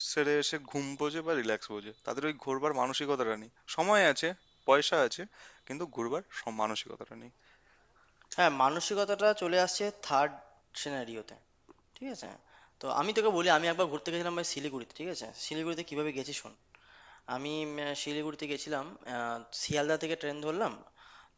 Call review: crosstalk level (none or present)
none